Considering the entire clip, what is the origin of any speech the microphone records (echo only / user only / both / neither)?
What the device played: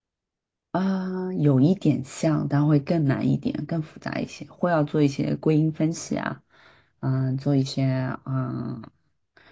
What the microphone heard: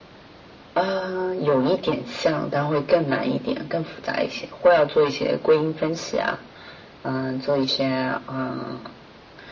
echo only